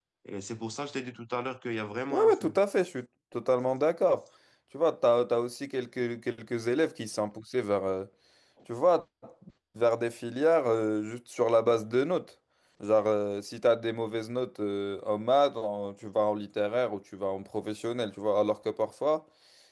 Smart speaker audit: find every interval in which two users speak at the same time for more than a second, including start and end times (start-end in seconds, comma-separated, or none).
none